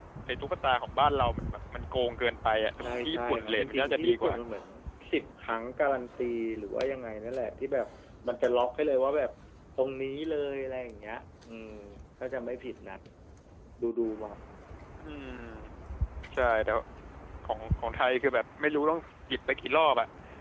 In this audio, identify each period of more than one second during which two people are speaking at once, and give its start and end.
2.8-4.3

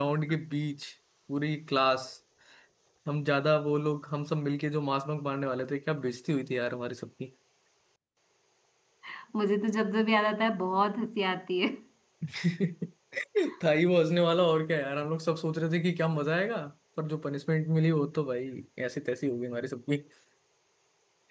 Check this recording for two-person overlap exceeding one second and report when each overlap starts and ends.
none

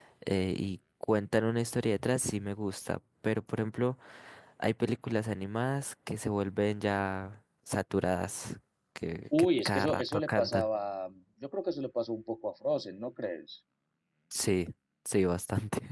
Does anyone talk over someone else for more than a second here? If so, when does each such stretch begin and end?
9.4-10.7

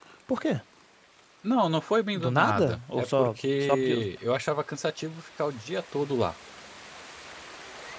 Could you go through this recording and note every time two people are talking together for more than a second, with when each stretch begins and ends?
2.1-4.0

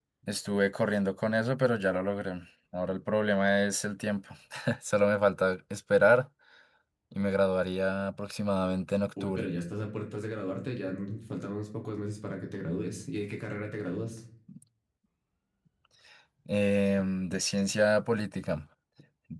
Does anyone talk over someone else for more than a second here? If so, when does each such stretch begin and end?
none

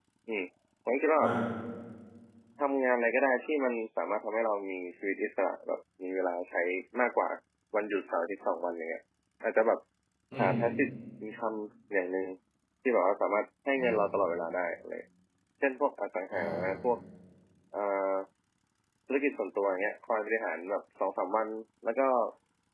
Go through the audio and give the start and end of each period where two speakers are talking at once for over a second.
none

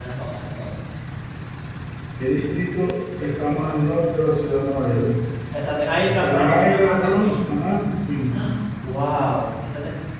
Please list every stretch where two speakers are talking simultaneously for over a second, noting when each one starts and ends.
6.1-7.4

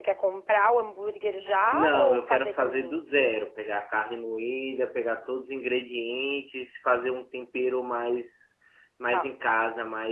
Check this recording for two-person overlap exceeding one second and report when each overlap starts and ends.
1.7-3.0

